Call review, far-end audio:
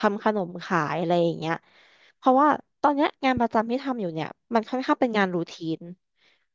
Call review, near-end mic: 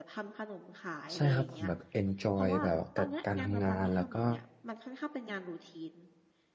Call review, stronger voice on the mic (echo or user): user